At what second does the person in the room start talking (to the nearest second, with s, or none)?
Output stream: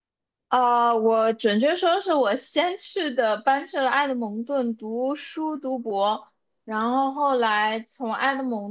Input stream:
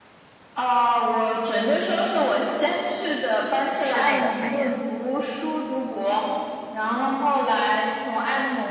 4 s